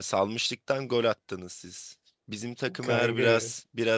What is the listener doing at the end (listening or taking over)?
listening